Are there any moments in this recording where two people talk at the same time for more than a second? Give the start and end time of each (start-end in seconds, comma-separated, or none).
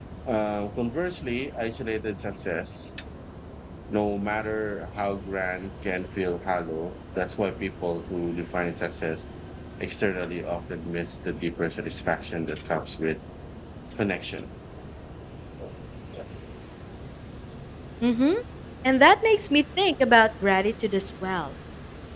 none